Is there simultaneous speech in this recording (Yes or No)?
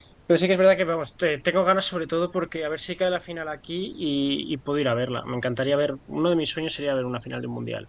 No